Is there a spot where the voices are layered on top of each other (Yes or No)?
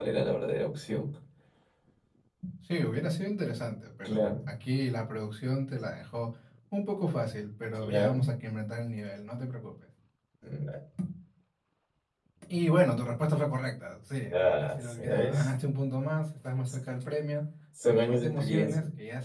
Yes